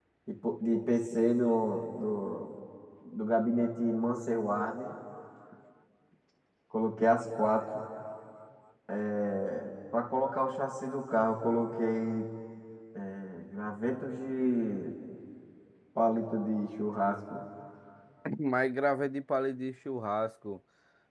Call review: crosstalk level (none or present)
none